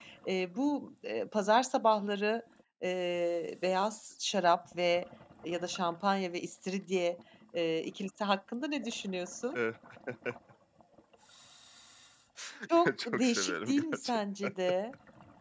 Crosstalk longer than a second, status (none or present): present